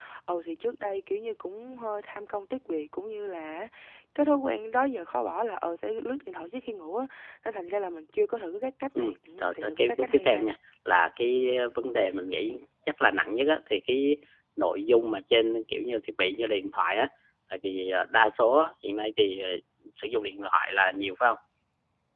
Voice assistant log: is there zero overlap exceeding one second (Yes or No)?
No